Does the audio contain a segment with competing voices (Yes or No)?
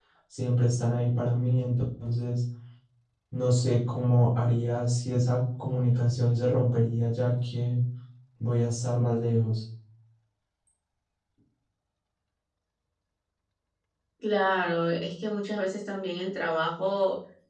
No